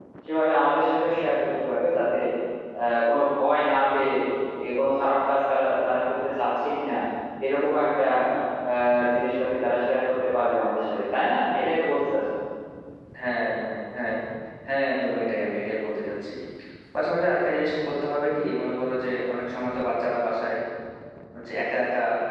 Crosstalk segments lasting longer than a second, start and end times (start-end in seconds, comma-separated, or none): none